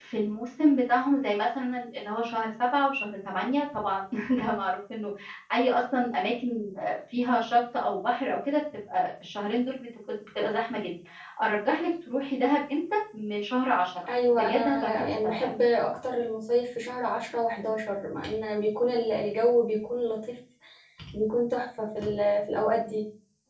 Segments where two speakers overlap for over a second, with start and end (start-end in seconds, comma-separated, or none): 14.3-15.5